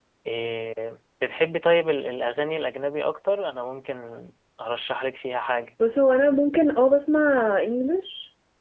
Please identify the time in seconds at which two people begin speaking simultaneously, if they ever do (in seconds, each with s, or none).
none